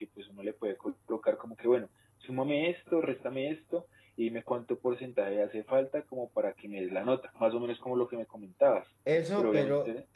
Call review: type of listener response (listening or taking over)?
taking over